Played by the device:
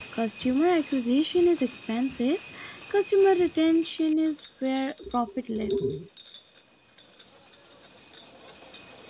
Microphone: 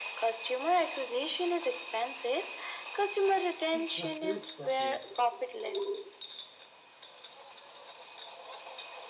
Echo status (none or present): present